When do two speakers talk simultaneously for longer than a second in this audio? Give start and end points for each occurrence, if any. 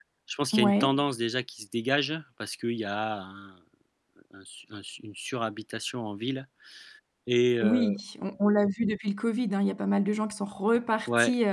none

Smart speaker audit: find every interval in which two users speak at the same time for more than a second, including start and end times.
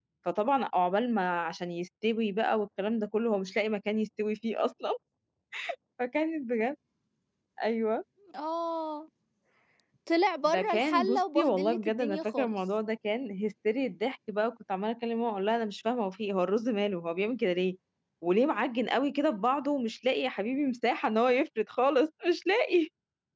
10.4-12.6

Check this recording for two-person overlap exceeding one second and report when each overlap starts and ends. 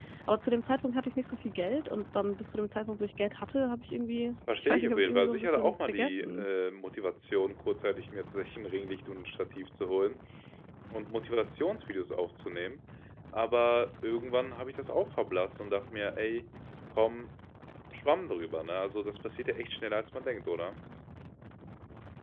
4.5-6.5

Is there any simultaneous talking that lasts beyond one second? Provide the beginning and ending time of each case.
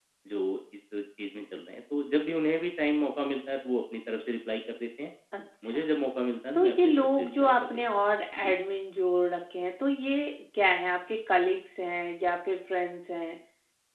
6.5-7.8

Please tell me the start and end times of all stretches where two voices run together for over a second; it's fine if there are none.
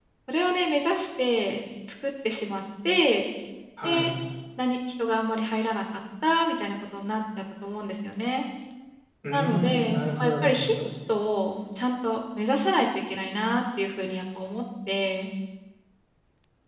9.3-10.8

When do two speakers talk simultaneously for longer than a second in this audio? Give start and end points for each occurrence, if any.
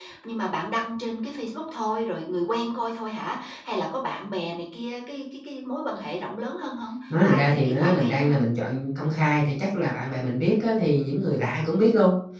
7.1-8.4

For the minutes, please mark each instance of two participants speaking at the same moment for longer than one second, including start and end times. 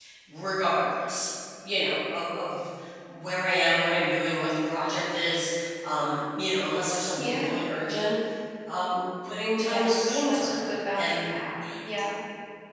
9.6-11.3

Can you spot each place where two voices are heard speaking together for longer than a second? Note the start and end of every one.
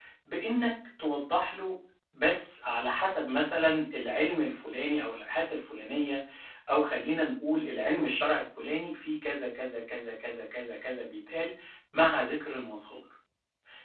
none

